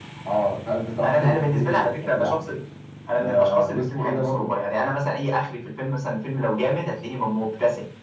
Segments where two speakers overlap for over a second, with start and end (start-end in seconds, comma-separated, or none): 1.0-2.4, 3.2-4.5